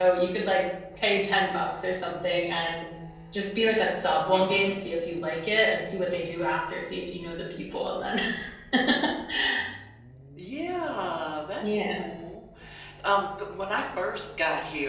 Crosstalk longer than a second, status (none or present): none